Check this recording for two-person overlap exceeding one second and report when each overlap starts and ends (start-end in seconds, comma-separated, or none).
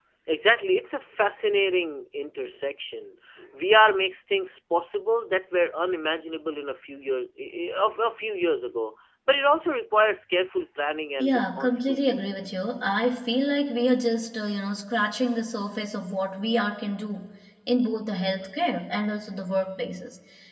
11.2-12.5